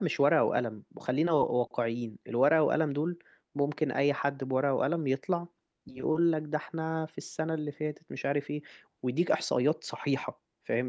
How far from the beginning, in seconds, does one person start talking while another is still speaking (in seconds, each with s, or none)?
none